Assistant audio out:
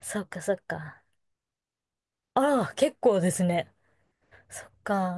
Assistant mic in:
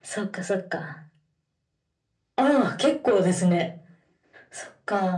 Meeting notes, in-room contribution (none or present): none